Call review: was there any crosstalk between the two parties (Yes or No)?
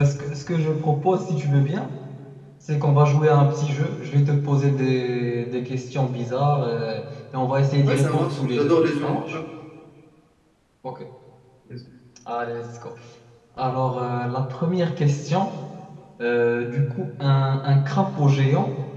Yes